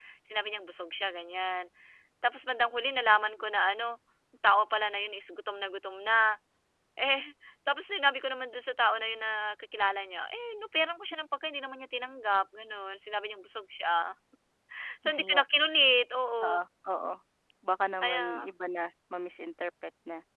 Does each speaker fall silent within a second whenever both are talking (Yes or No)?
Yes